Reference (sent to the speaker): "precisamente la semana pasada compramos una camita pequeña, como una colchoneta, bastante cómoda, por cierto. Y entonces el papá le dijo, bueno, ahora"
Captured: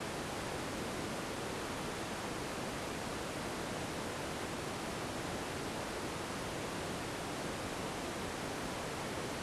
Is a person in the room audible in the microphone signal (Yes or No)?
No